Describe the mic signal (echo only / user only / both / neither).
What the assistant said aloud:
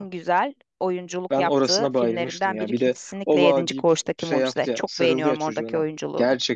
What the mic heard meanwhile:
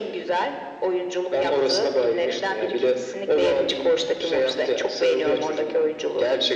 echo only